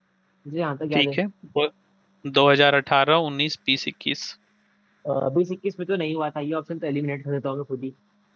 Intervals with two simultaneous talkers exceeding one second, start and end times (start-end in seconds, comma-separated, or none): none